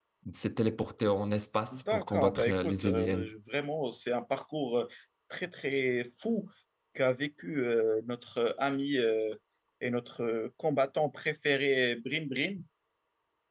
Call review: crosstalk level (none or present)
present